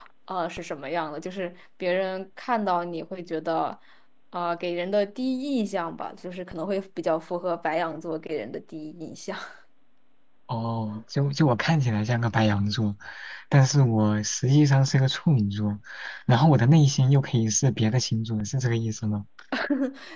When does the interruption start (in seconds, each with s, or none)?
none